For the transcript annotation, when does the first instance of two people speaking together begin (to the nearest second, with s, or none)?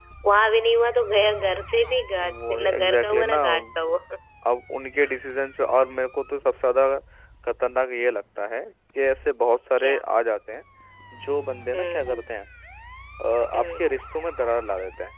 2 s